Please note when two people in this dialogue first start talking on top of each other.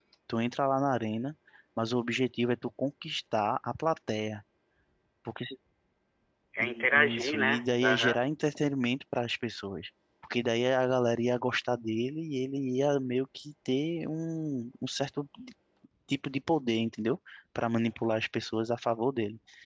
6.6 s

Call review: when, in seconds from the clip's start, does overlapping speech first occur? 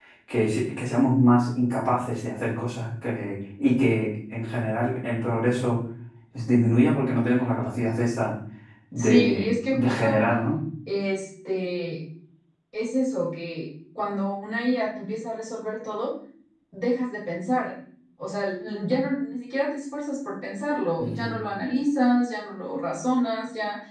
9.0 s

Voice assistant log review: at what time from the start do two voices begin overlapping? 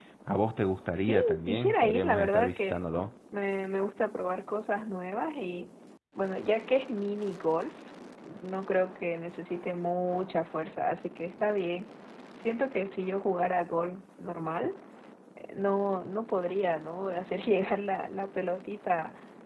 1.1 s

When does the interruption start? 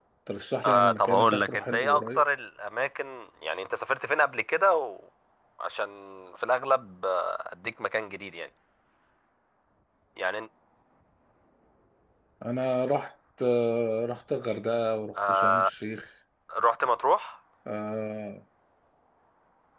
0.6 s

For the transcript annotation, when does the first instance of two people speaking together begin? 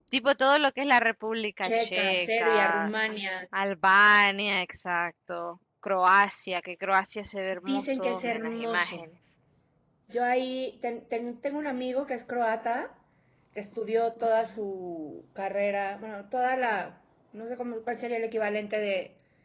1.6 s

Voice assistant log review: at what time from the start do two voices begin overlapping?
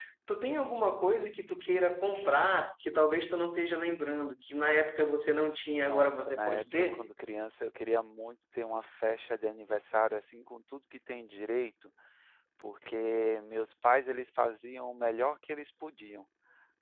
5.8 s

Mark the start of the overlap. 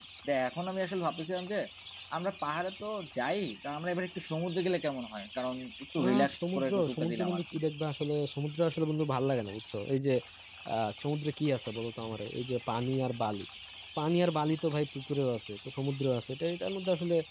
6.0 s

